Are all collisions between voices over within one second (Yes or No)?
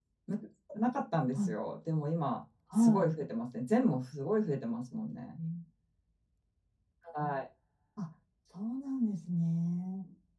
Yes